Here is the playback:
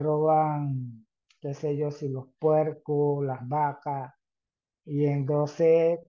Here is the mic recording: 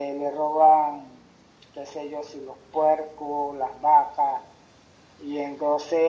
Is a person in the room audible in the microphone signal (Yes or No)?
No